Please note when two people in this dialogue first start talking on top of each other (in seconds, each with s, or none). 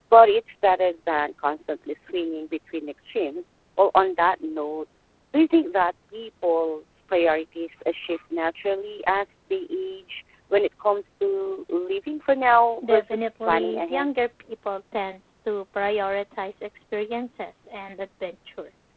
12.8 s